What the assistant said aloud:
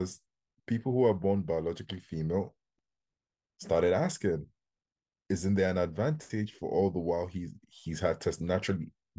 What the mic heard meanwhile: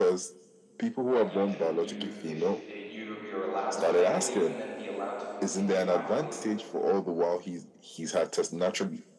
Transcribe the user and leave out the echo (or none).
Like you can you if you you're allowed to, they would even then be allowed to continue, I believe,